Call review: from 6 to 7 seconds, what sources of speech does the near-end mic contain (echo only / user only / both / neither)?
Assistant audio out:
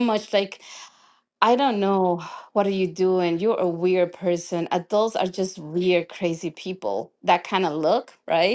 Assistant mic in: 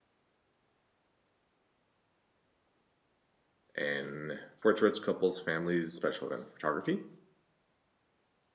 user only